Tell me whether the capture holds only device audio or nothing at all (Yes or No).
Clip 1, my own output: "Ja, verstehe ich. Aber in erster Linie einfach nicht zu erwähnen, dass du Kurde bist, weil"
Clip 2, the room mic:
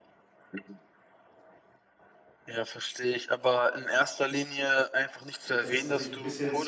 No